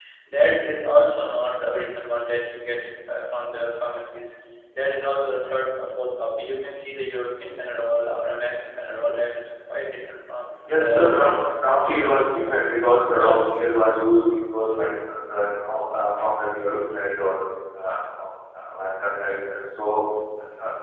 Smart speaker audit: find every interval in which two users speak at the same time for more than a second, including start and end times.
10.7-12.2

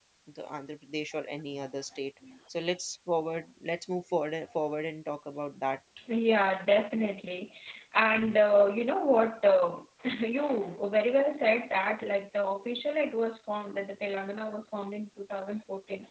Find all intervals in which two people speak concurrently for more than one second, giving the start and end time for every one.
none

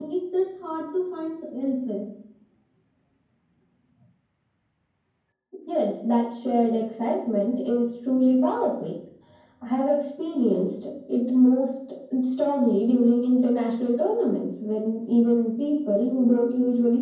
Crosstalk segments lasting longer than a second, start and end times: none

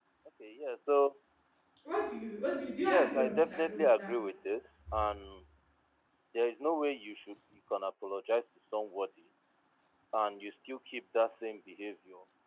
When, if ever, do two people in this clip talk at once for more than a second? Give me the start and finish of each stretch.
2.8-4.1

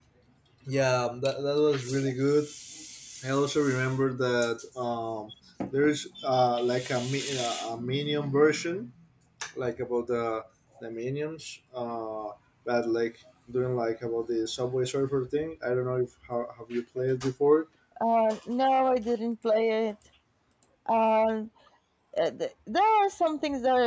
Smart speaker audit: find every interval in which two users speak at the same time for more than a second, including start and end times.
none

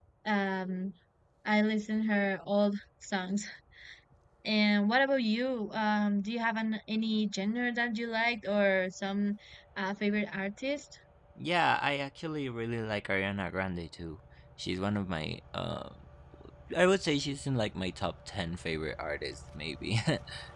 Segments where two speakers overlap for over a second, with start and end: none

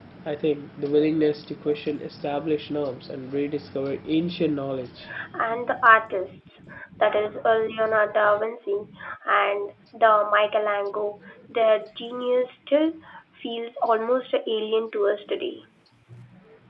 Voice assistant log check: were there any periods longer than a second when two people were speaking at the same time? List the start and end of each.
none

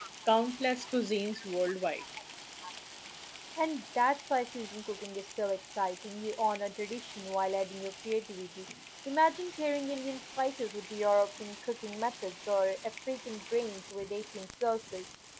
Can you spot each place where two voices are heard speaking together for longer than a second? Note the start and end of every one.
none

